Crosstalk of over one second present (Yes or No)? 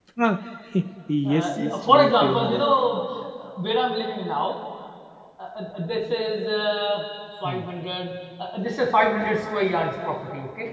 Yes